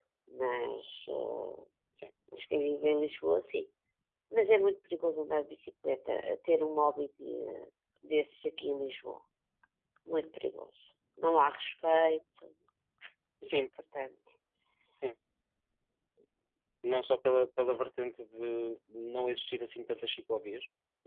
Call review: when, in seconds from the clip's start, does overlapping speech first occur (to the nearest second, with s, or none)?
none